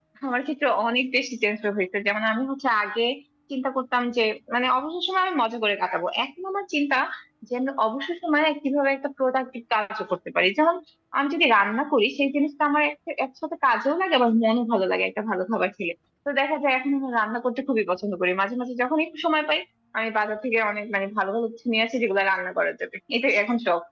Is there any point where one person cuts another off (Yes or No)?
No